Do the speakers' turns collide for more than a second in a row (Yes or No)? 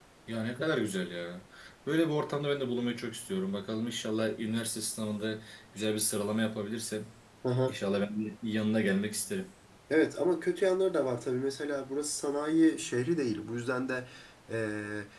No